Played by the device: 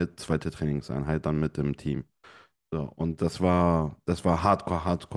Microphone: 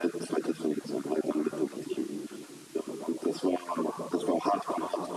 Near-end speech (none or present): none